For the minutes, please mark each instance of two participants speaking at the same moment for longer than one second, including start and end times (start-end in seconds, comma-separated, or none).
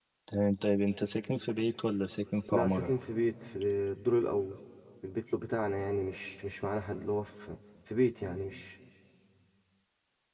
none